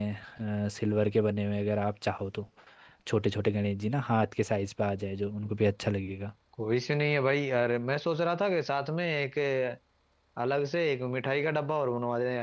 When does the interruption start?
none

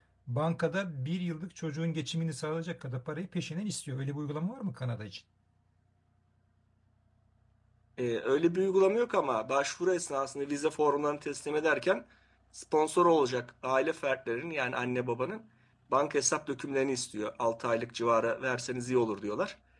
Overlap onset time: none

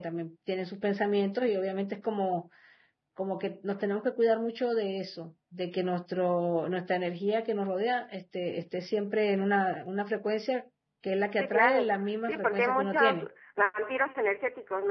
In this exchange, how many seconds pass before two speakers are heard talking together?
11.4 s

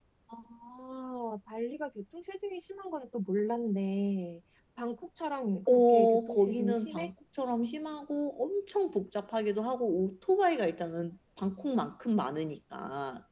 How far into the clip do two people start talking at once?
5.7 s

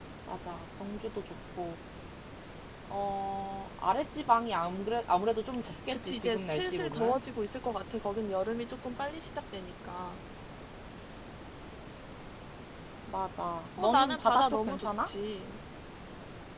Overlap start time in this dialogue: 5.9 s

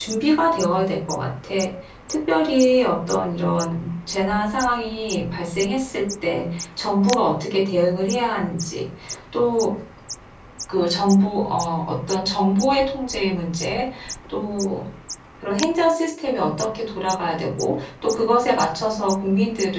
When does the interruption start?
none

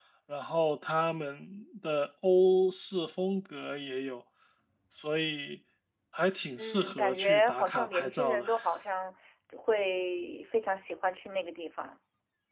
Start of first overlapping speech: 6.5 s

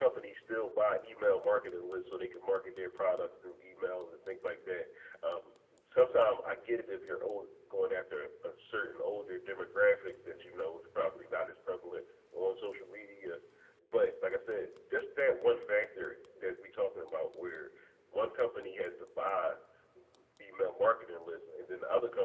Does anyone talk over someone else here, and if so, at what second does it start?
none

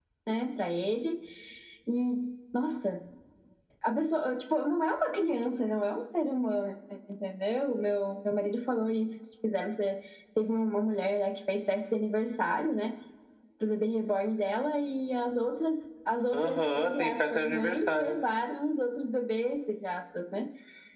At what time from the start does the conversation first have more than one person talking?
16.3 s

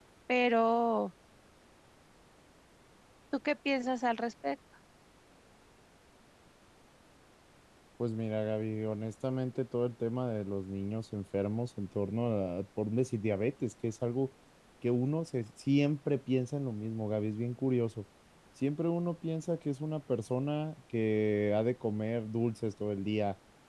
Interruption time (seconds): none

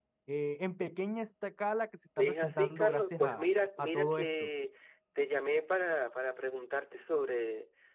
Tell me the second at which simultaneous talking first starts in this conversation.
2.2 s

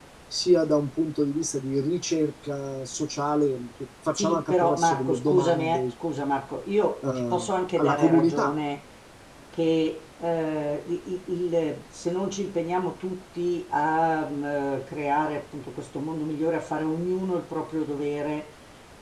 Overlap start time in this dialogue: 4.1 s

